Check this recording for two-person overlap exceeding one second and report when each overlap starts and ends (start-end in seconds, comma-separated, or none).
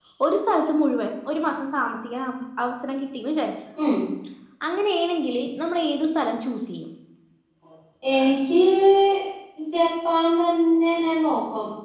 none